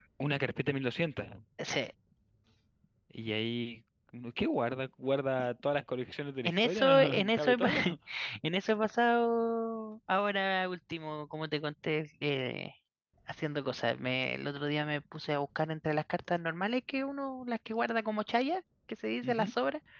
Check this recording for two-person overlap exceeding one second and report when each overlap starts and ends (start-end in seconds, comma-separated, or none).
6.4-7.7